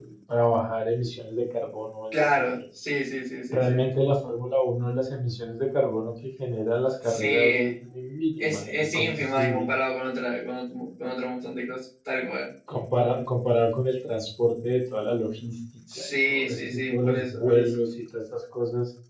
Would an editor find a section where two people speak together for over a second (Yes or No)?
Yes